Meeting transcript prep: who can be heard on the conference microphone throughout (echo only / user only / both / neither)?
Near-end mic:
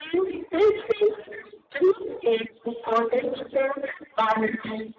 echo only